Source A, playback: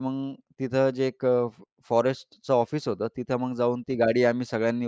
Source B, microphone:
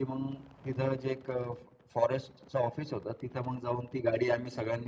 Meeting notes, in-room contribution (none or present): none